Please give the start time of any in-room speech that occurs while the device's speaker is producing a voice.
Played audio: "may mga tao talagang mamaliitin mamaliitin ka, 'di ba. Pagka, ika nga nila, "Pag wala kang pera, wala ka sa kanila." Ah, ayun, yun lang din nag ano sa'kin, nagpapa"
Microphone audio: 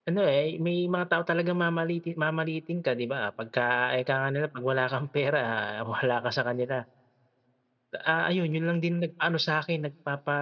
none

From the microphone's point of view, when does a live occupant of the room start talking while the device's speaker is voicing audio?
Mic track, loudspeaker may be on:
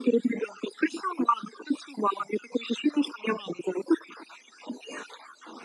none

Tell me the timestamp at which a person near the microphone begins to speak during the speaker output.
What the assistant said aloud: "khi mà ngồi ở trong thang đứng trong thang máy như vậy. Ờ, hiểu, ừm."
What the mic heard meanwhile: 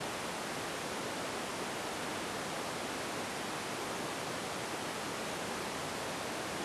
none

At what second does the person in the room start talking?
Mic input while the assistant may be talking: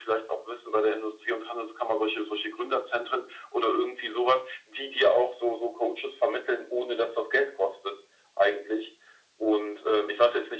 none

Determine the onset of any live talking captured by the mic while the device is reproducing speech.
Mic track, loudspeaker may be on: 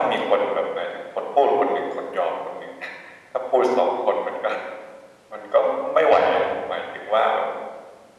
none

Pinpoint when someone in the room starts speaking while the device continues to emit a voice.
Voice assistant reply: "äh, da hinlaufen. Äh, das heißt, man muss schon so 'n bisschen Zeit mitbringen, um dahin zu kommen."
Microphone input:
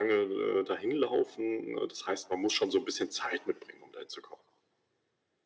none

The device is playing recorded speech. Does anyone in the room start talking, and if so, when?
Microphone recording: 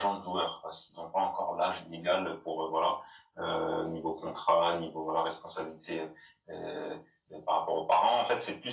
none

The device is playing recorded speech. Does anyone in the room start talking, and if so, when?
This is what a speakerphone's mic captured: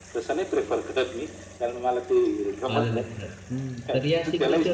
2.7 s

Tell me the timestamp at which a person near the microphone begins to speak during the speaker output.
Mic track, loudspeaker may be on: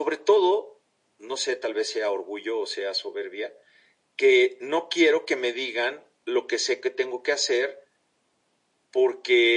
none

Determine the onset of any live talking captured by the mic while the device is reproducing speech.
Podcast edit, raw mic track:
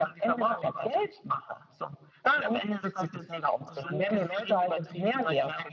none

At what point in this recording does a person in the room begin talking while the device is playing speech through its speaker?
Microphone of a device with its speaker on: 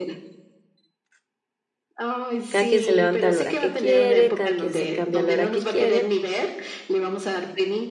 2.5 s

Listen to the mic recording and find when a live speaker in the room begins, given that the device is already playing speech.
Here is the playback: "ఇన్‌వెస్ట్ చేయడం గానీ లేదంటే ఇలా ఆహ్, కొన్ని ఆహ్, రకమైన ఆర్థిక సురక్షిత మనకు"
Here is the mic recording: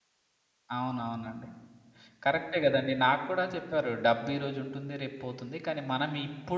0.8 s

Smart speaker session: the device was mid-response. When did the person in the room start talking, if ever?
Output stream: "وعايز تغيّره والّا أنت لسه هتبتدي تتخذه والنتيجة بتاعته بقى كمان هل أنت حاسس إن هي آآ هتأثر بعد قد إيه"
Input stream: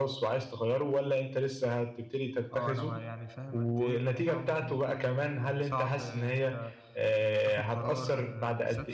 2.5 s

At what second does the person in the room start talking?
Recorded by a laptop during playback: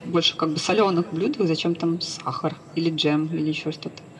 none

